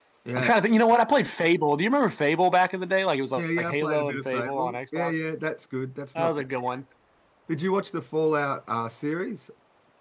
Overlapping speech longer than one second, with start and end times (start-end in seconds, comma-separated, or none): 3.4-5.1